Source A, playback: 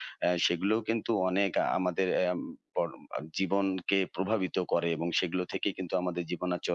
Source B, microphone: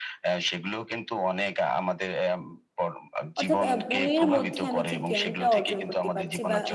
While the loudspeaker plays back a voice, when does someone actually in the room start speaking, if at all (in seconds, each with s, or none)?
3.4 s